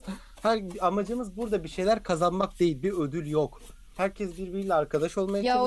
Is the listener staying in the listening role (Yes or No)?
No